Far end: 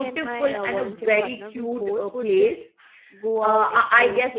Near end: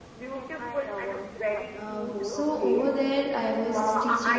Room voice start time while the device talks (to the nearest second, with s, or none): 2 s